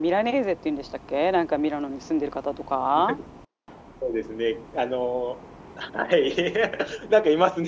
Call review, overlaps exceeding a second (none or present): none